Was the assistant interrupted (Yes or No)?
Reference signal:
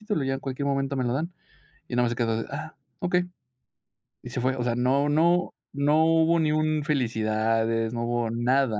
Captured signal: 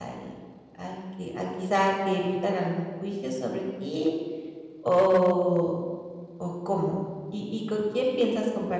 Yes